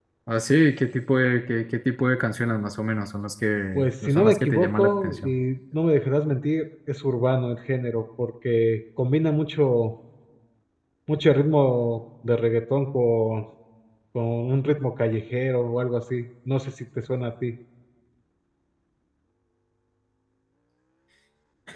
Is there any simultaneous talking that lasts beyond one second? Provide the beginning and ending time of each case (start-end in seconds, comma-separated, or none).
3.7-5.3